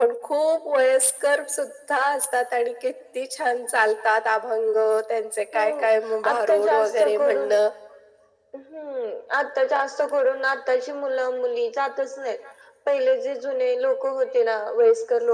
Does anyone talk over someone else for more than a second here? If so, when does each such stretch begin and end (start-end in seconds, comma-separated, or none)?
6.3-7.5